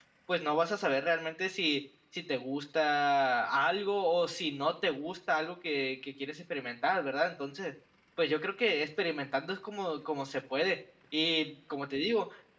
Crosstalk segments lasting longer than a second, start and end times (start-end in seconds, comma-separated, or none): none